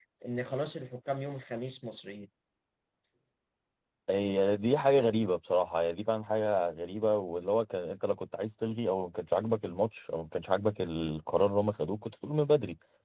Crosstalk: none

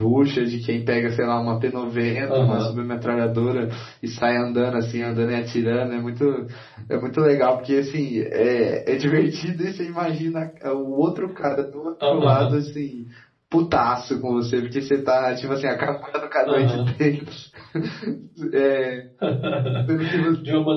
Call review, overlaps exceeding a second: none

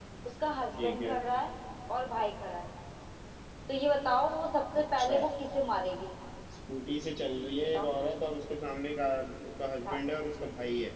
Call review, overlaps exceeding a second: none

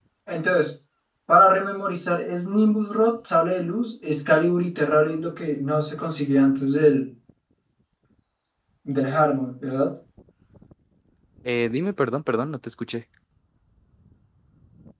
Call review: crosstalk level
none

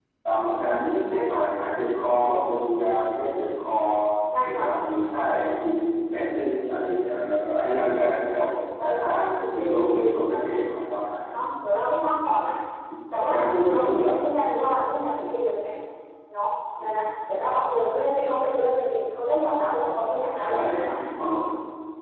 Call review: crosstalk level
present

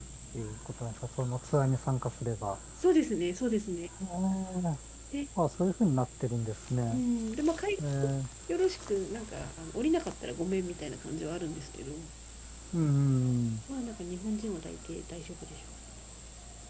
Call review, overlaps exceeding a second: none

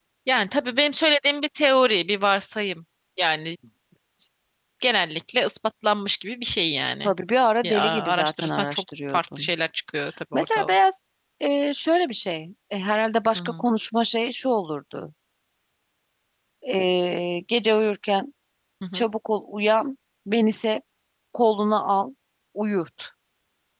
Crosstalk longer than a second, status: present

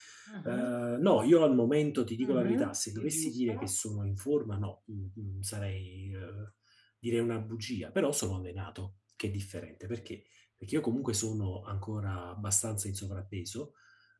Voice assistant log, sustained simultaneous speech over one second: present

